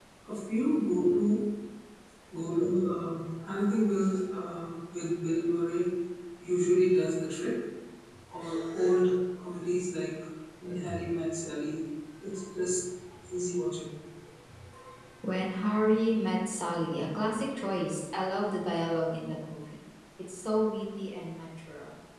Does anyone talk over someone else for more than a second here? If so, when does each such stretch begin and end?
none

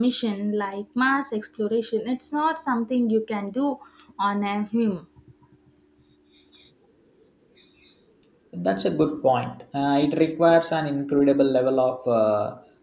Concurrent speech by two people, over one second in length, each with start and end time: none

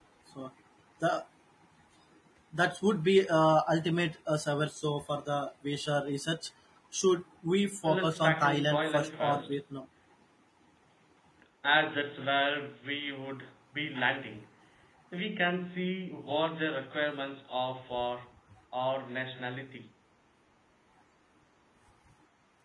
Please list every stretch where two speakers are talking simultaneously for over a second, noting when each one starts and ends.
7.8-9.6

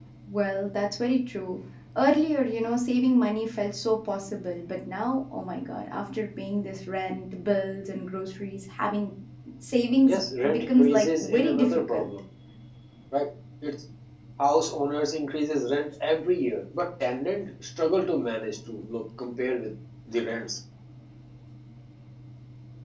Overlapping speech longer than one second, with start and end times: 10.1-12.1

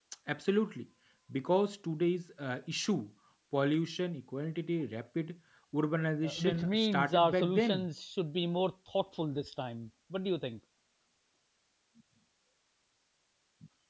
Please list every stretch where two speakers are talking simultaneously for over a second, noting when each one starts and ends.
6.2-7.9

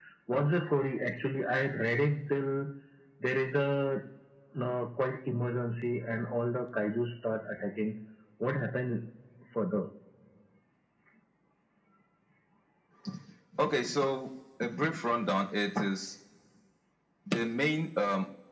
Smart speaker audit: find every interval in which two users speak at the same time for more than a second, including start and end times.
none

